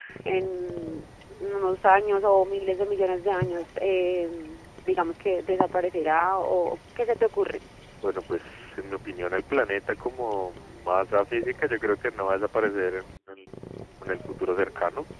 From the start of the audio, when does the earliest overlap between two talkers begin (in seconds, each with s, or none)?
none